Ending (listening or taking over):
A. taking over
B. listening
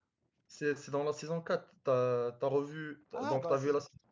A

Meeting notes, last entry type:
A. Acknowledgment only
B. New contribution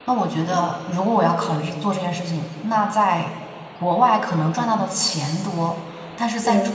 A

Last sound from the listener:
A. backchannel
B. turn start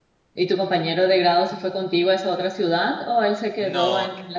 A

